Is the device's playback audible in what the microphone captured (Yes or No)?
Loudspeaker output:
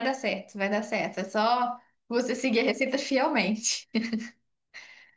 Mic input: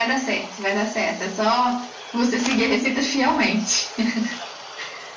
Yes